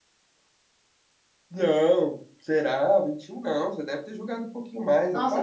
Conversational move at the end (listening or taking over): taking over